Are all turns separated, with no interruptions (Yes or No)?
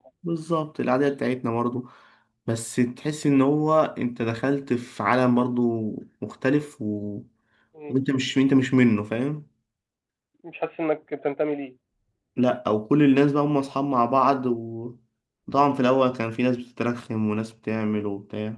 Yes